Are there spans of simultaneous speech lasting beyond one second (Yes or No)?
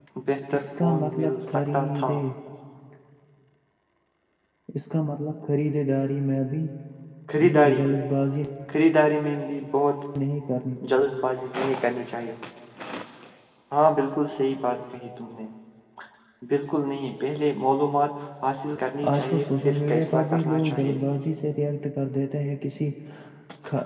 Yes